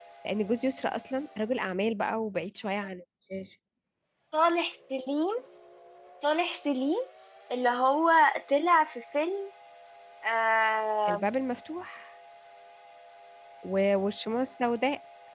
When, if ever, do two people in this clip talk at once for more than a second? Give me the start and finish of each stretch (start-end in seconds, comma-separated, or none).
none